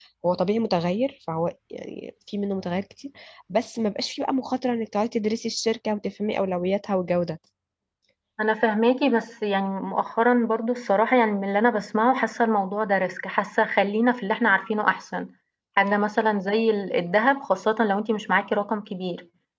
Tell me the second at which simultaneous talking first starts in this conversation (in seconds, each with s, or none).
none